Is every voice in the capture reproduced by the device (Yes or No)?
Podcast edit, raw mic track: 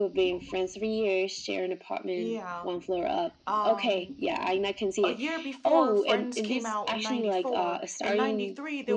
No